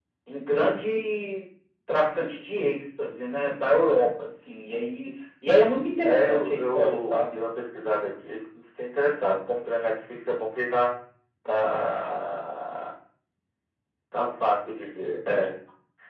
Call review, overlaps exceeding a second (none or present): present